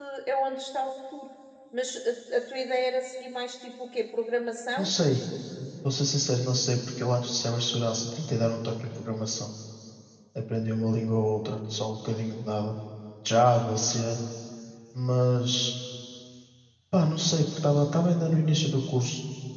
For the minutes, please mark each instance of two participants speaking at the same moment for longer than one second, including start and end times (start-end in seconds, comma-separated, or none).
none